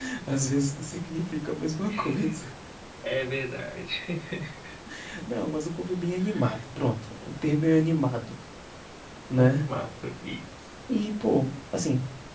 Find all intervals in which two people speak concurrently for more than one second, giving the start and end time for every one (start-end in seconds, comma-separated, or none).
none